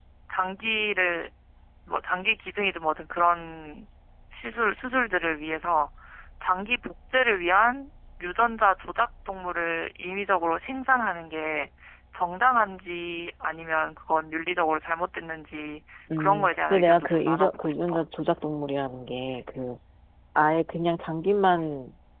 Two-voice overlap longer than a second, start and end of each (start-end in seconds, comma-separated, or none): 16.2-18.0